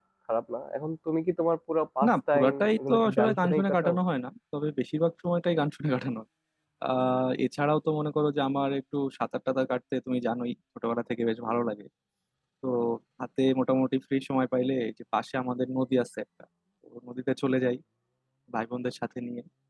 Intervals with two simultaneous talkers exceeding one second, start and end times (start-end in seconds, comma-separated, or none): 2.1-4.0